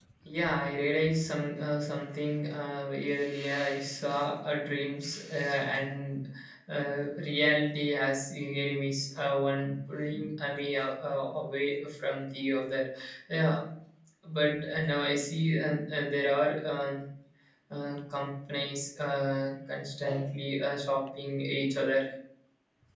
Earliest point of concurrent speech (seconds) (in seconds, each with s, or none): none